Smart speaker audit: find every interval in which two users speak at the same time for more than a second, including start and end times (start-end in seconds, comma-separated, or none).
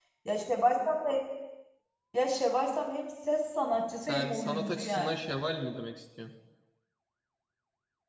4.0-5.3